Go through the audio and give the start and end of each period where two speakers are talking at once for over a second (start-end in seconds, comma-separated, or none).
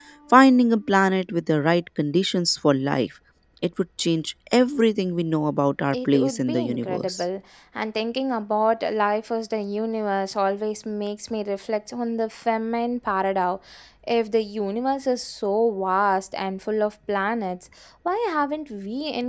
5.9-7.2